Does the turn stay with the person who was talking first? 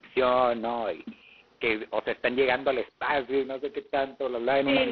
No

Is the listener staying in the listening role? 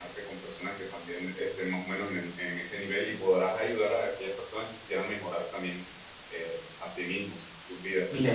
No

